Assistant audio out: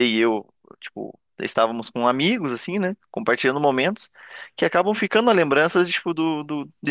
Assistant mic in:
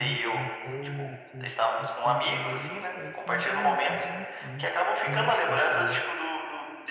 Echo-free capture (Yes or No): No